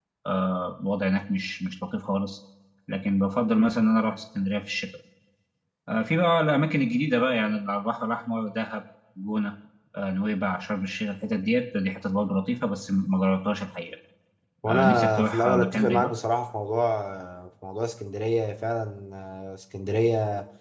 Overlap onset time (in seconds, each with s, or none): 14.7 s